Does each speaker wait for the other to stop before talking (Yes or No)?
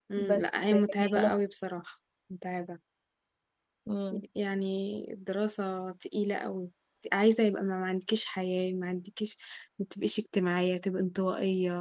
No